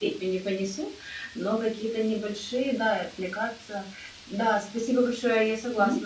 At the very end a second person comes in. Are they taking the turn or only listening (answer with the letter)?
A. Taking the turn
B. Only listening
B